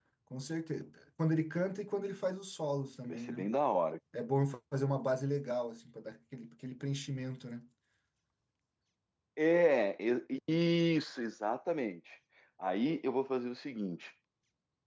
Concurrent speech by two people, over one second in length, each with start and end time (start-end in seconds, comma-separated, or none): none